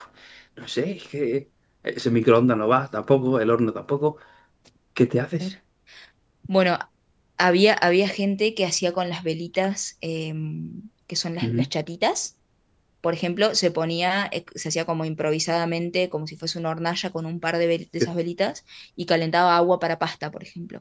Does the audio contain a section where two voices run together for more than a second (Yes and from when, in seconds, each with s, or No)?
No